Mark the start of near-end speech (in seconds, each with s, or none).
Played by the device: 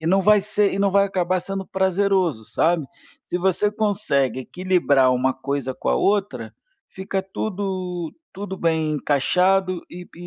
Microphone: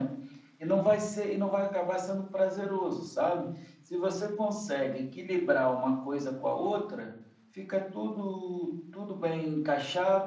none